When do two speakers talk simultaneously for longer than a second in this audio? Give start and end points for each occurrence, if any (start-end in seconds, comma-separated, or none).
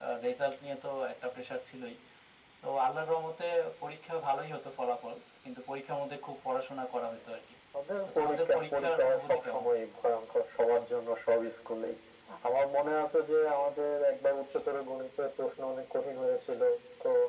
8.1-9.6